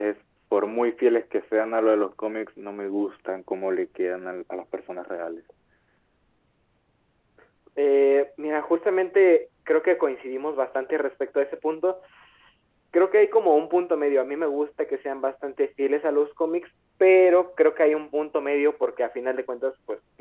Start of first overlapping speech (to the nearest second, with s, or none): none